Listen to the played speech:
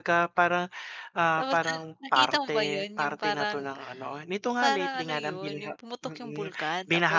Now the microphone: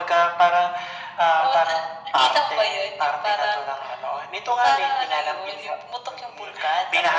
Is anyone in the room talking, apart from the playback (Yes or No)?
No